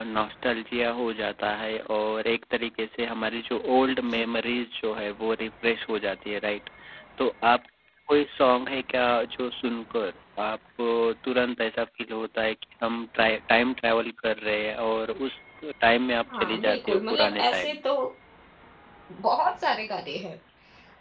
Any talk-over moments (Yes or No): Yes